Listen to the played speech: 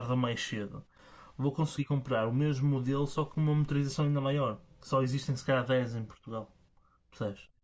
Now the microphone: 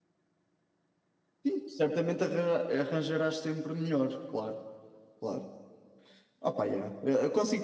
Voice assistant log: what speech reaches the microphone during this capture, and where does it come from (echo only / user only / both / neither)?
user only